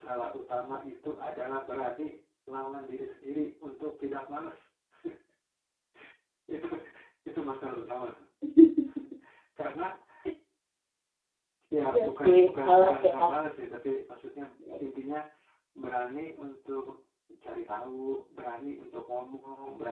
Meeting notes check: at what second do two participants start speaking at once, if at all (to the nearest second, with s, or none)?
12 s